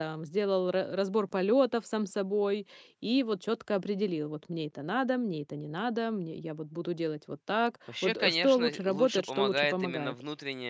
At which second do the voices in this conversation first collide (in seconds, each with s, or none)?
7.9 s